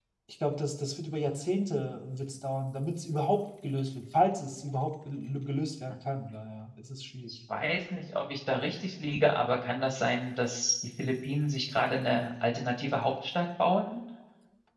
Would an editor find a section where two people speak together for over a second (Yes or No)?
No